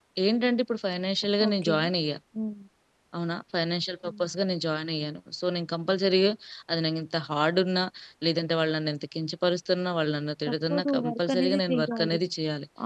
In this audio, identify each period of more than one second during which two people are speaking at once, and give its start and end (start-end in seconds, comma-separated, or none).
10.5-12.2